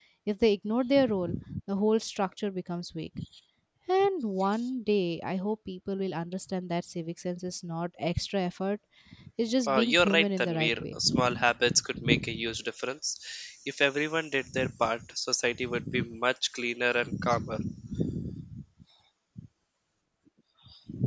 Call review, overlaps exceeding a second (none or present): present